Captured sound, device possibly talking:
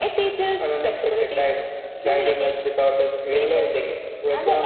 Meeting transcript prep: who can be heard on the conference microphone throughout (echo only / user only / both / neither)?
echo only